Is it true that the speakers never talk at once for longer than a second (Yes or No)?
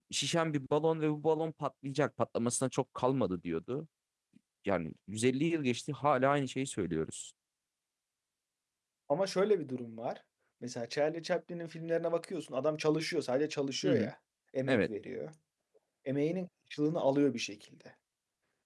Yes